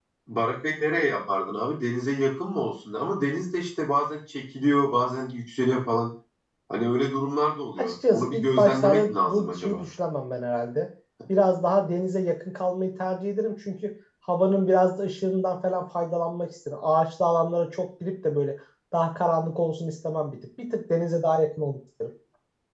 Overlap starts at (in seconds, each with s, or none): 7.8 s